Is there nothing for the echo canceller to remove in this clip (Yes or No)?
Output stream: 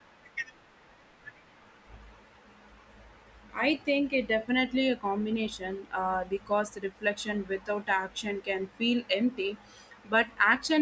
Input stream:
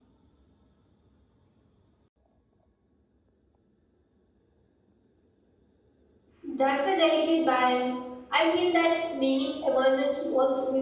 Yes